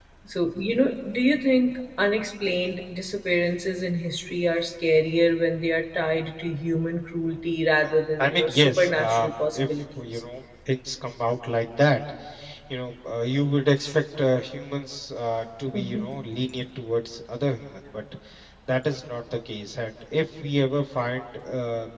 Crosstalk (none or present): present